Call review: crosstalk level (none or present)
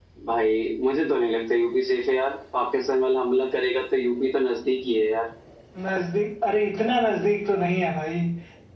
none